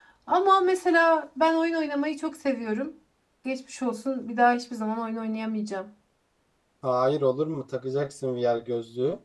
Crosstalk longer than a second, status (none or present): none